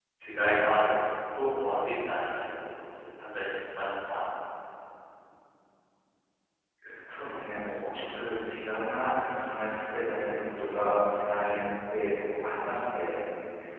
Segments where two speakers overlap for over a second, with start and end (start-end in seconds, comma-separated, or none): none